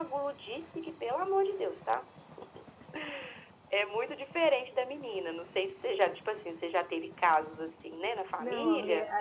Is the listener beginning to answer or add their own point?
Yes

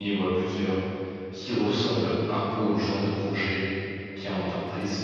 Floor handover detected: No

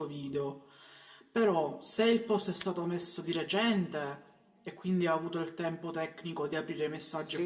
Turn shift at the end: Yes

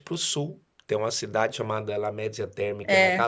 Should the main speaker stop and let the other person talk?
No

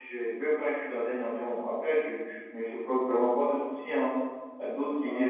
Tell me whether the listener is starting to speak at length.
No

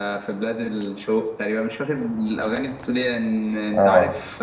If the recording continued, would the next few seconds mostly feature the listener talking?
No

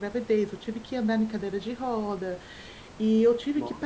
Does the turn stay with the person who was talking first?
Yes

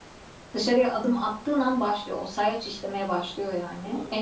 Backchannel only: Yes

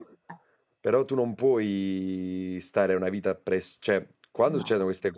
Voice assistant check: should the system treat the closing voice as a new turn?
No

